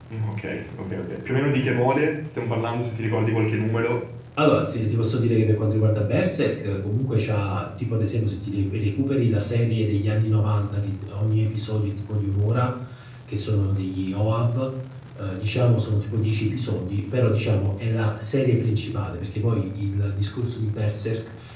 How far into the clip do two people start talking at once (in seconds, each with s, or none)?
none